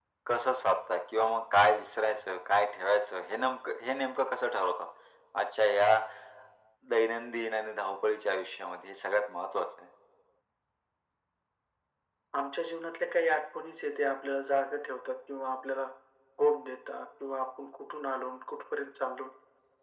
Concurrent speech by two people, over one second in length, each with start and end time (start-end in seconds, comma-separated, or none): none